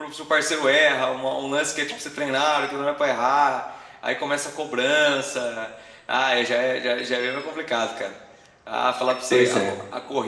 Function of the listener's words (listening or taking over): listening